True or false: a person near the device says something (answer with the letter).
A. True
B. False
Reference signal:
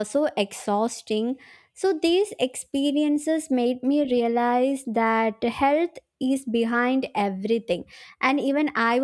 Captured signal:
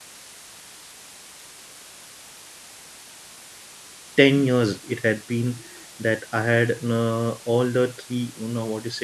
A